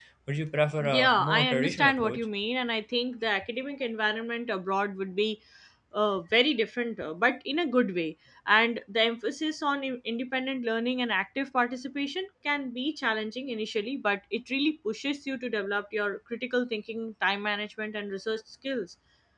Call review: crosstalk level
present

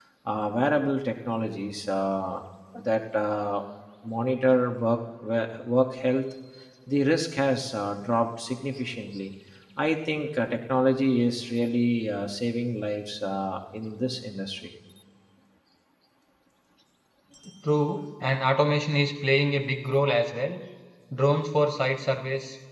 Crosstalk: none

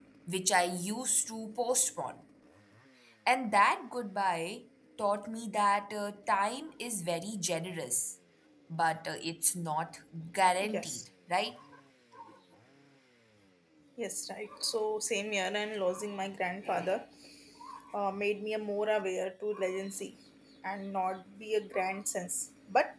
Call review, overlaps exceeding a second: none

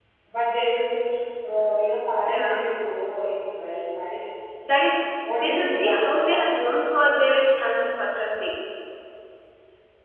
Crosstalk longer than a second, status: present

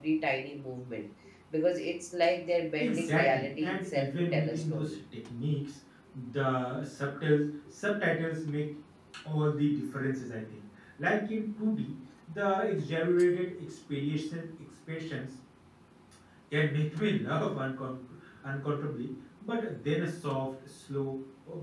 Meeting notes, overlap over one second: present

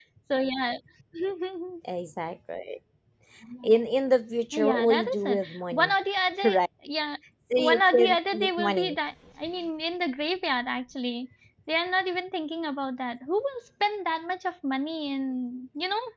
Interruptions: present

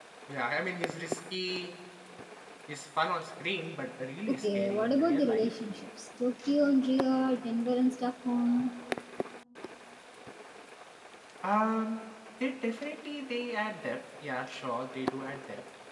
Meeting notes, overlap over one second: present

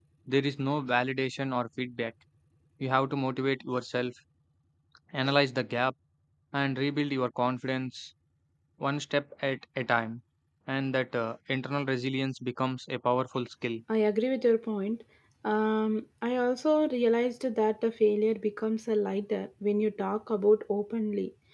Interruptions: none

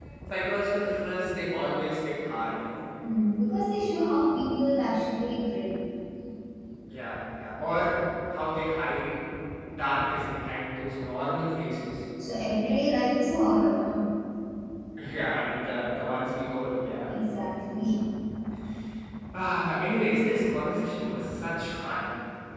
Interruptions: none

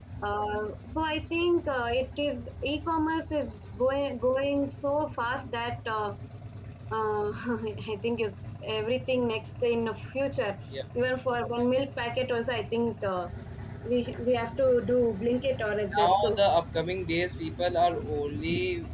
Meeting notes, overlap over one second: none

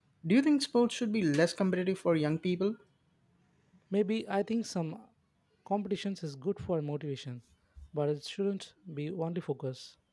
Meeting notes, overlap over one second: none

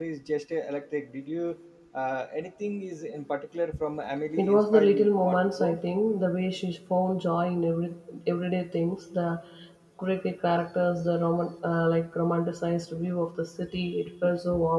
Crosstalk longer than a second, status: present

